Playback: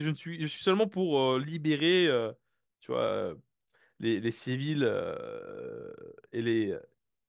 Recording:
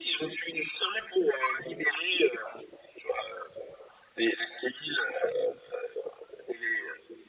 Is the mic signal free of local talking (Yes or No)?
Yes